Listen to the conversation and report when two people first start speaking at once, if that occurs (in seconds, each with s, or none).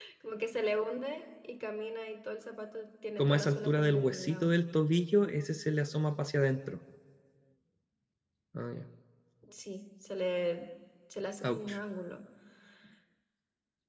3.2 s